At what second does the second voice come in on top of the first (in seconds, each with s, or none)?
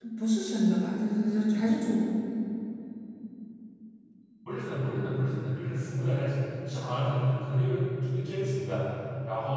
none